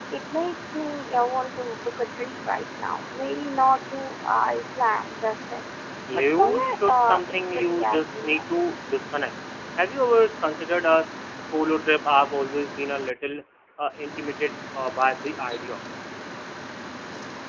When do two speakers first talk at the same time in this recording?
6.1 s

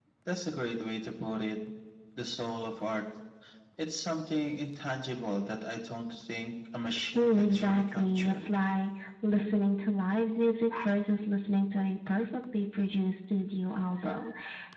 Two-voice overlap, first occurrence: 7.2 s

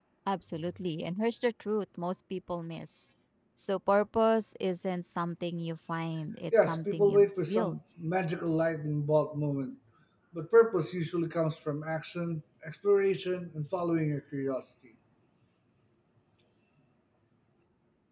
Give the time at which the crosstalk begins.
6.5 s

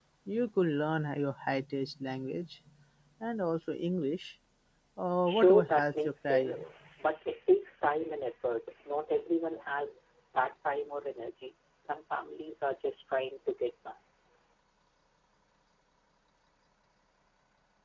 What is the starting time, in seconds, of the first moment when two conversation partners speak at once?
5.3 s

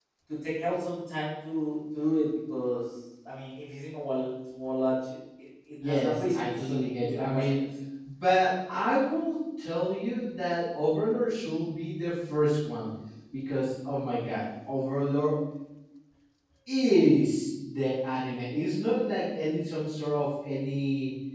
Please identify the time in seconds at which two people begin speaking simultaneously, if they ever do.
5.8 s

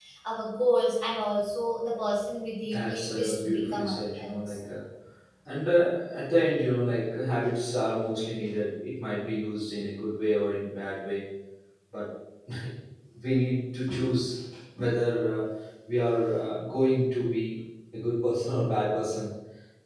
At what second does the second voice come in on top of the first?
2.6 s

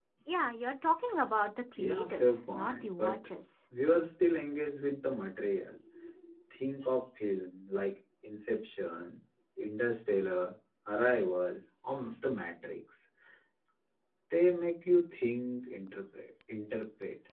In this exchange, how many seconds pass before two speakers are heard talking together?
1.8 s

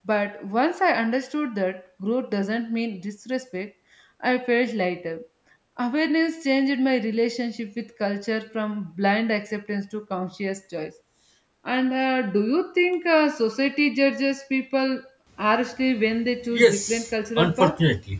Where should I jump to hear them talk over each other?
16.5 s

